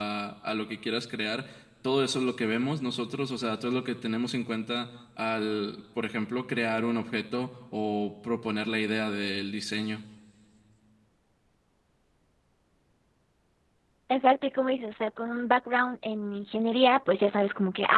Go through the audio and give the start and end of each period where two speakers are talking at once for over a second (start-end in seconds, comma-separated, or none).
none